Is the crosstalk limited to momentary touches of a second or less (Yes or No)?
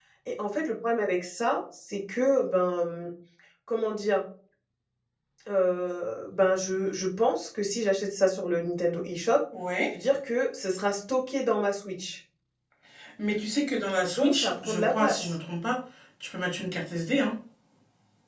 No